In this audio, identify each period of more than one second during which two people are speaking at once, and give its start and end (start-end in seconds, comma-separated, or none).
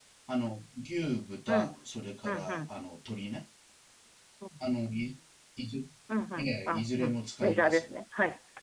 6.4-7.9